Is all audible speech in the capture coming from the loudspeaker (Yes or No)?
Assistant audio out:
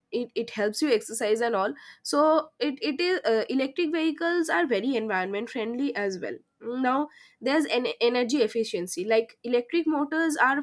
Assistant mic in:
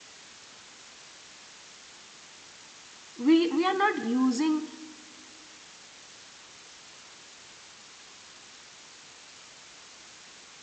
No